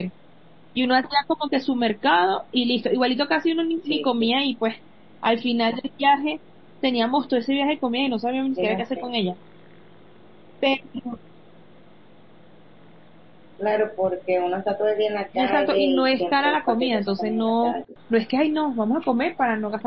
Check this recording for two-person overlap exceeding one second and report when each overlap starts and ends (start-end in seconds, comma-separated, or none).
15.3-17.7